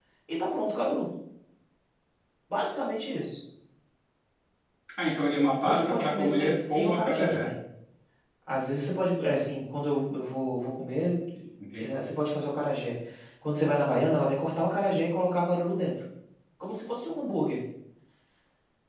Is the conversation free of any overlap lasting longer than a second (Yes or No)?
No